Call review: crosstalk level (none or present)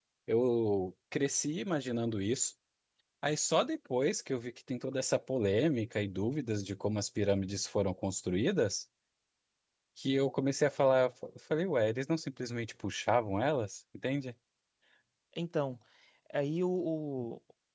none